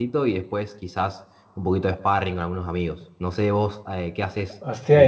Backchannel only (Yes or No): No